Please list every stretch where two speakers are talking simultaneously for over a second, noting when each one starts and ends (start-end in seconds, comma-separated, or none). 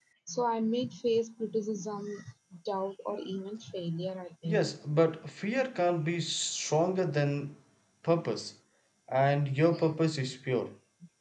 none